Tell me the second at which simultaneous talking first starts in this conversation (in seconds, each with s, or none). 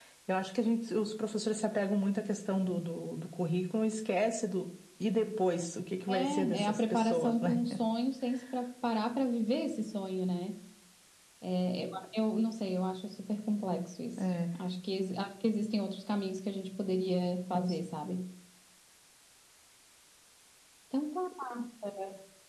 6.1 s